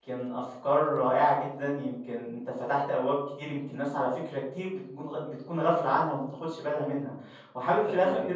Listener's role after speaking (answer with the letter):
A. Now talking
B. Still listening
B